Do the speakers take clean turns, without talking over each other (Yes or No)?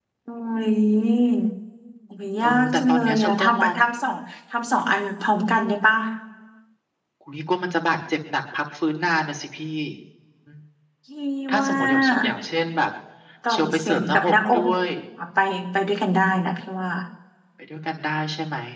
No